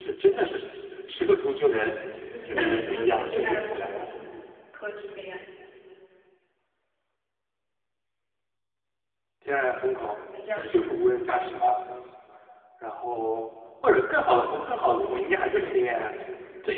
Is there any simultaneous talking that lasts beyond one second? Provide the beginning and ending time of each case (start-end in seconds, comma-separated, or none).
2.4-4.4